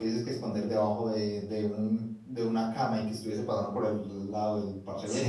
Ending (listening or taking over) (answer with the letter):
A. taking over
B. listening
A